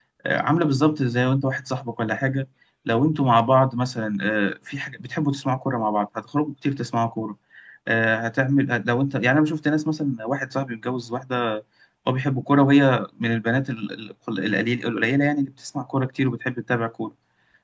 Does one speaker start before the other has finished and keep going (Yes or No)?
No